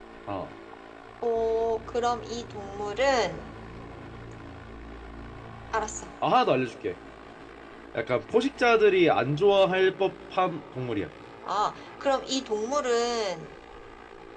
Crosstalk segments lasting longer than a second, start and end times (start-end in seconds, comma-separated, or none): none